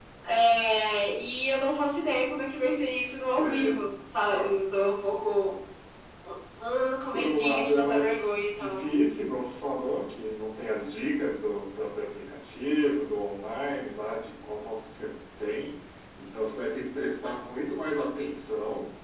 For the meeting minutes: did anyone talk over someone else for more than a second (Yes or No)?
Yes